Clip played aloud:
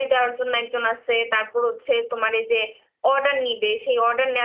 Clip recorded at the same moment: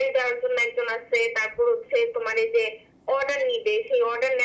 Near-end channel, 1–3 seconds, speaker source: echo only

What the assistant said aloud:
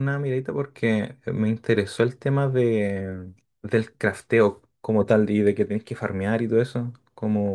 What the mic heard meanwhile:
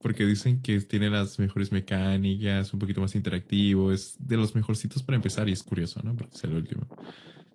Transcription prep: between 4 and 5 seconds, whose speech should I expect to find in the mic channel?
user only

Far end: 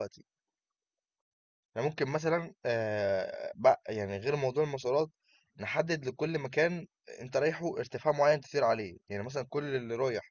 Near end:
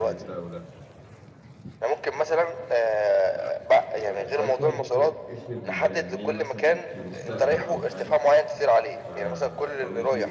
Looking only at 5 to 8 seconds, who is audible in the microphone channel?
both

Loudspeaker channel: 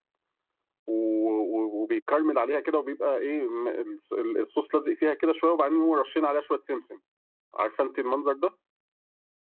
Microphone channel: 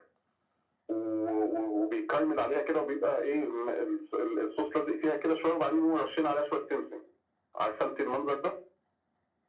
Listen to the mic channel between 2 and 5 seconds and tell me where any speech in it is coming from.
echo only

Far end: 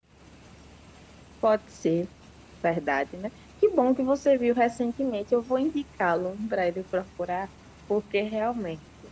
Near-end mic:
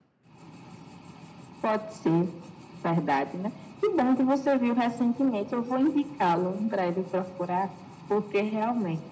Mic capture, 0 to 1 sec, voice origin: neither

